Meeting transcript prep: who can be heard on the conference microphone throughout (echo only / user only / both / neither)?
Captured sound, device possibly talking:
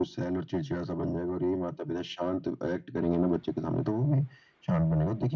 echo only